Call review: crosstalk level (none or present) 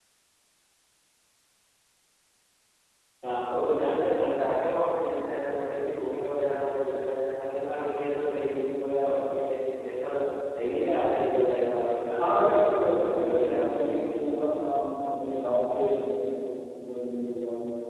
present